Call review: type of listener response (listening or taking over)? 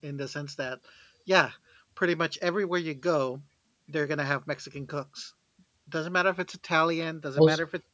listening